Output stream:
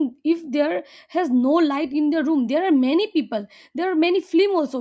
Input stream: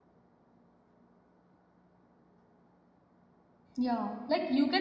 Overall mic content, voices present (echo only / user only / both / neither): user only